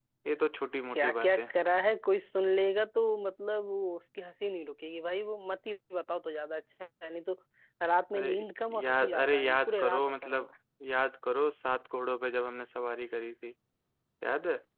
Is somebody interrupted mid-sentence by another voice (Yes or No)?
Yes